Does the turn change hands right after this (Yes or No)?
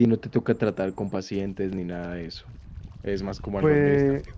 Yes